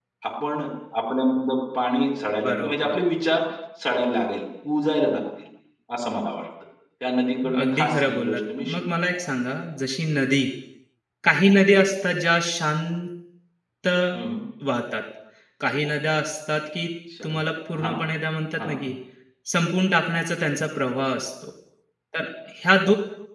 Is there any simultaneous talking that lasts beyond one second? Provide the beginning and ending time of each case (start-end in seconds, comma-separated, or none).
7.6-8.8